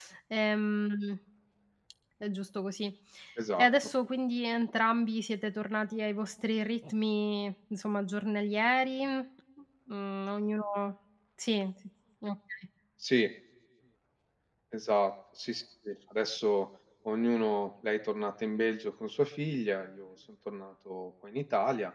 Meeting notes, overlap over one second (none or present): none